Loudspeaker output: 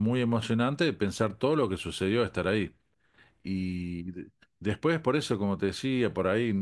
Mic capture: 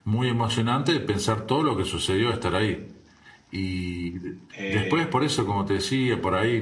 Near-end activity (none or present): present